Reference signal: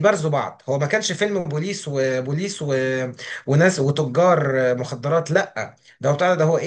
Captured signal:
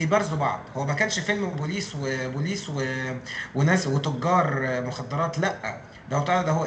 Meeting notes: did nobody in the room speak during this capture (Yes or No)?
Yes